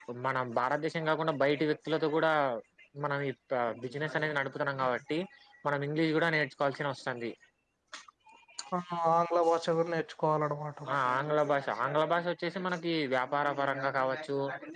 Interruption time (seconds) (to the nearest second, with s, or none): none